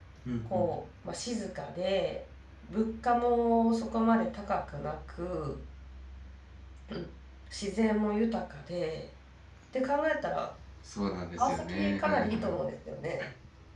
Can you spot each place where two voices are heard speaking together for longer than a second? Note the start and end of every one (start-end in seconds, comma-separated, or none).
11.4-12.6